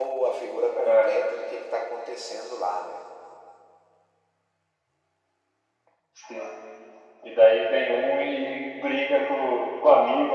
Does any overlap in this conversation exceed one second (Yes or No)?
No